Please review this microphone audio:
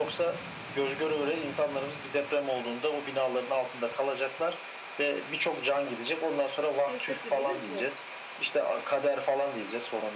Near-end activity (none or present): present